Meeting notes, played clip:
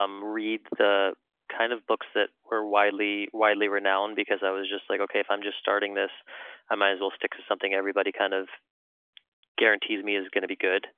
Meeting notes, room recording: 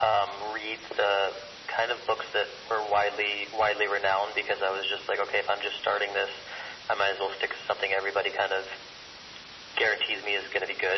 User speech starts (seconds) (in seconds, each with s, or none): none